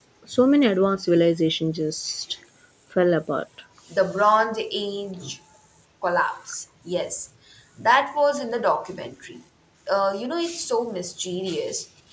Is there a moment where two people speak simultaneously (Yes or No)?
No